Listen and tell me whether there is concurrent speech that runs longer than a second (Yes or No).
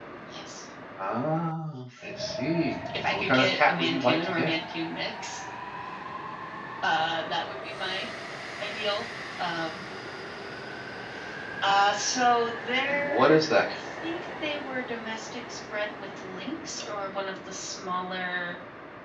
Yes